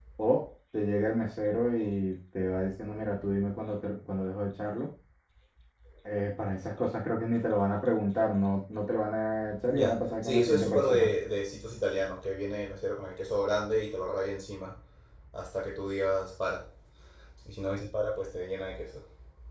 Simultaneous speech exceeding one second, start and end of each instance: 9.7-11.1

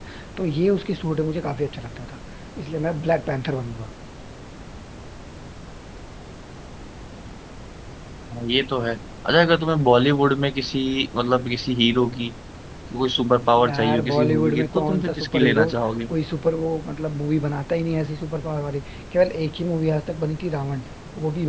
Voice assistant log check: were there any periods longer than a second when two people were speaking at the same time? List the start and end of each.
13.6-15.7

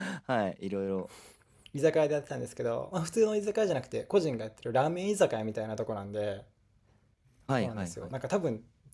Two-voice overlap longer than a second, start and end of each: none

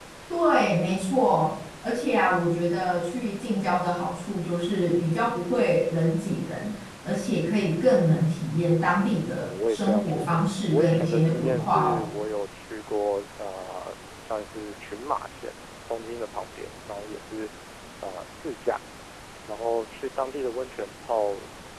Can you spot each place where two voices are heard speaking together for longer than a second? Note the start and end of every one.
9.4-12.1

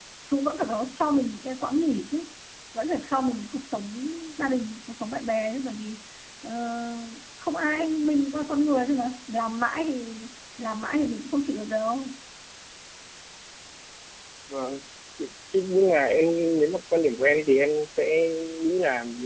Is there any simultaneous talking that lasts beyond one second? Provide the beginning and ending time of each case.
none

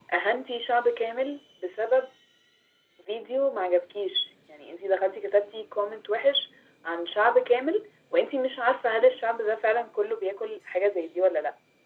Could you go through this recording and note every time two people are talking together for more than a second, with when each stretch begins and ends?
none

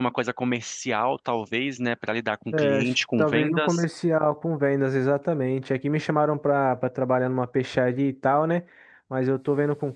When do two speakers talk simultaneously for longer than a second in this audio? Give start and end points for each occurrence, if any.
2.5-3.8

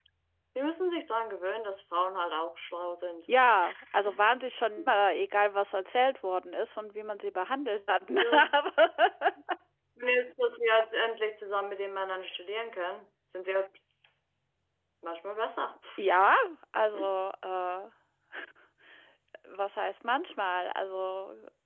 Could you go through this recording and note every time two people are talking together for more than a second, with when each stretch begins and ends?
none

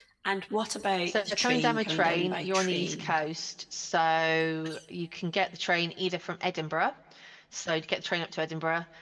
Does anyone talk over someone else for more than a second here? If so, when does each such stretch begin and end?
1.1-3.1

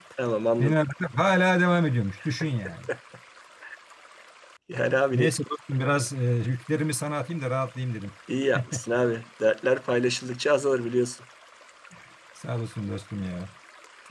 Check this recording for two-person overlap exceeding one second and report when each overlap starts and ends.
none

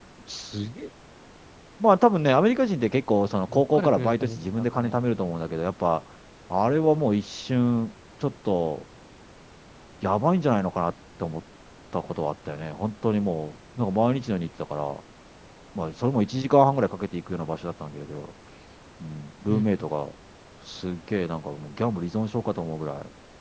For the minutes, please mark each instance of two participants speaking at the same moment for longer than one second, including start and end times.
3.5-5.0

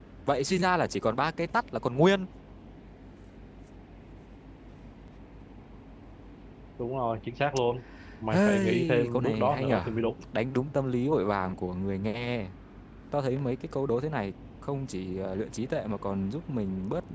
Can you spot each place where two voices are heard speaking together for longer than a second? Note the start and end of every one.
8.3-9.8

